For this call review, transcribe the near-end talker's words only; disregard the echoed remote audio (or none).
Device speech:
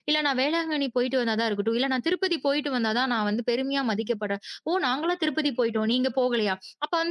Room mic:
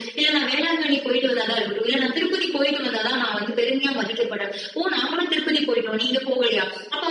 none